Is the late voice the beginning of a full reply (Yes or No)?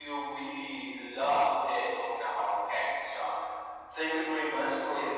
No